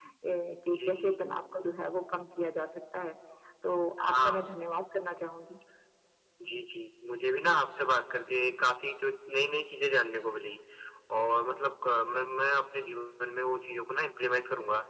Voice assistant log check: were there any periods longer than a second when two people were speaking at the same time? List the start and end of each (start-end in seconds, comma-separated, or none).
none